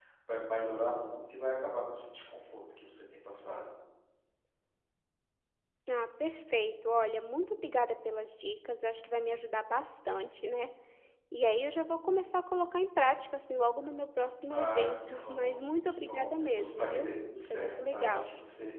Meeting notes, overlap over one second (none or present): present